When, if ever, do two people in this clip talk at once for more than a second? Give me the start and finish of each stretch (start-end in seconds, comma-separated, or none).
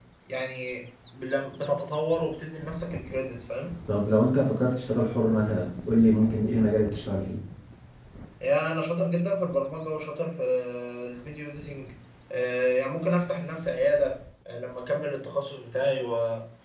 none